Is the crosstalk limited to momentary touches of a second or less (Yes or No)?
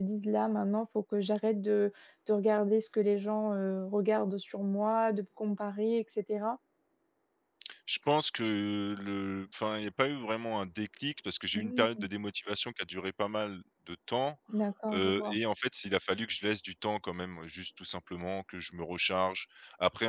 Yes